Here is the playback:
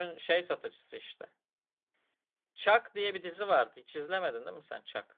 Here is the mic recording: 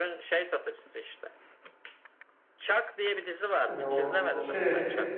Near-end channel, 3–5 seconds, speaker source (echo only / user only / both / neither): both